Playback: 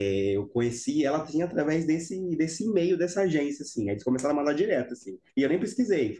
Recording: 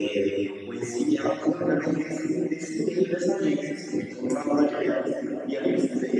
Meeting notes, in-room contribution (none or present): none